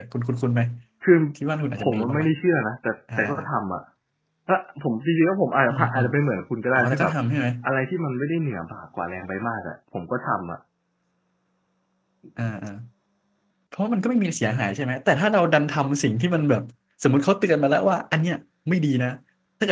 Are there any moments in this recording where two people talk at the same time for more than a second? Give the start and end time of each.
none

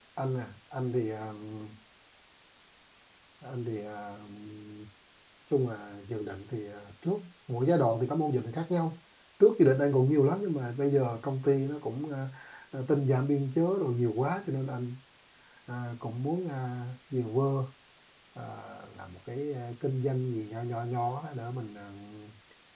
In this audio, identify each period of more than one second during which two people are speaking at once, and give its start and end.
none

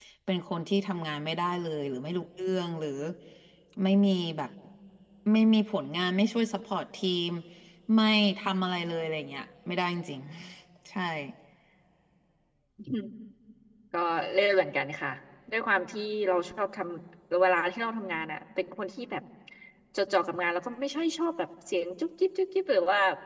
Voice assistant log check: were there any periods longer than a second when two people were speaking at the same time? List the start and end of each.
none

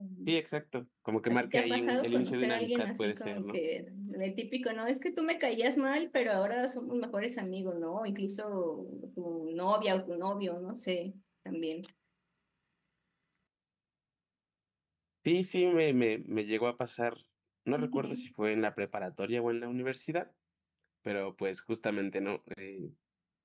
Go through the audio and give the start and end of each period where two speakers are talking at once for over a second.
1.3-3.6

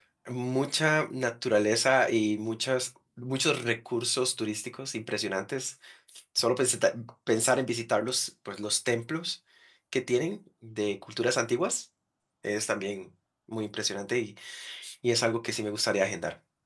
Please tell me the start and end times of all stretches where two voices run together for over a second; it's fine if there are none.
none

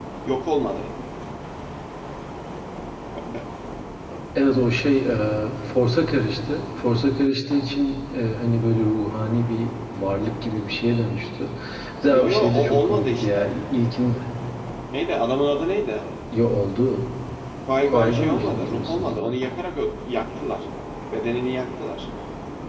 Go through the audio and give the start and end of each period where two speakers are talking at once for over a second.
12.1-13.5, 17.8-19.4

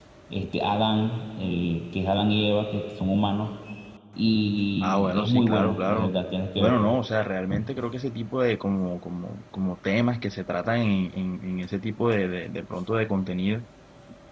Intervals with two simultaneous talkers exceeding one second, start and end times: 4.8-6.1

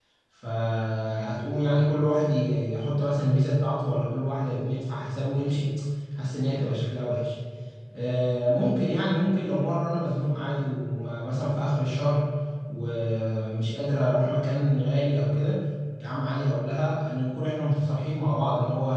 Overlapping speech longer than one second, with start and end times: none

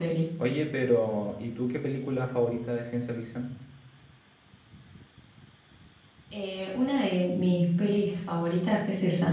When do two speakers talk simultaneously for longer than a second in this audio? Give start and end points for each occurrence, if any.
none

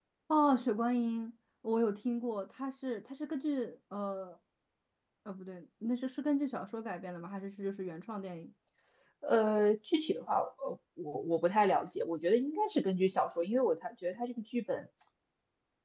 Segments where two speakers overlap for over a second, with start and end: none

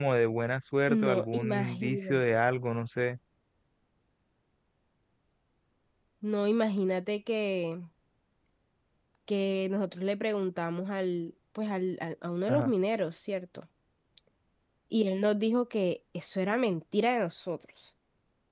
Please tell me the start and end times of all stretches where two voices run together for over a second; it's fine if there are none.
0.9-2.4

